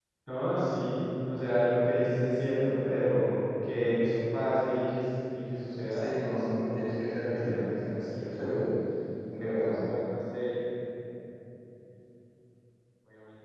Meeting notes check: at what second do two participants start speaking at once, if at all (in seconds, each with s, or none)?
5.8 s